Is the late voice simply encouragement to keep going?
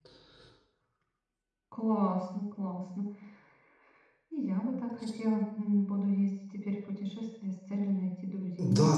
No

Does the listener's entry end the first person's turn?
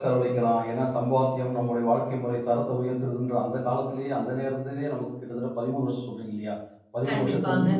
No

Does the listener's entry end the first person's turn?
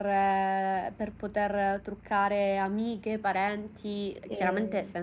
No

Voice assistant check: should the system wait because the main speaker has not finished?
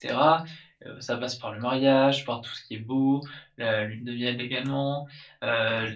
Yes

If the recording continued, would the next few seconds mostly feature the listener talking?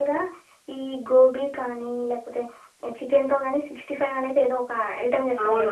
No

